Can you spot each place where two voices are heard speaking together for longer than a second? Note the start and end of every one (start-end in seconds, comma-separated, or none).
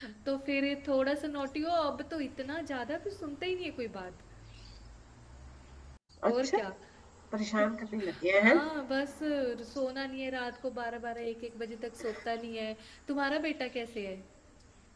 none